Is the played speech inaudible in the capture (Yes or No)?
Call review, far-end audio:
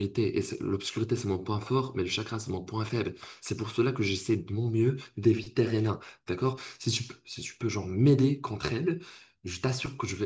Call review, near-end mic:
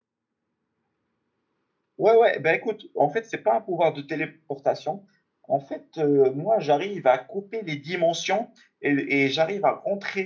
Yes